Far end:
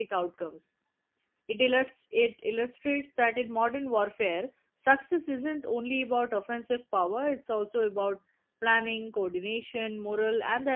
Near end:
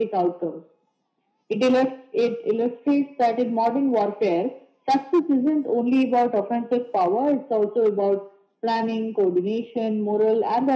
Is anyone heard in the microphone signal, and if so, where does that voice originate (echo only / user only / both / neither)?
echo only